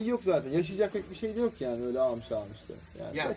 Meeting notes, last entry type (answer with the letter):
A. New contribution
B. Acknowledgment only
A